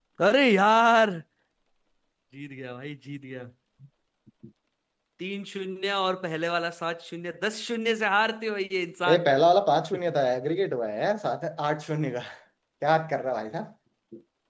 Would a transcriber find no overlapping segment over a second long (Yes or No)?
Yes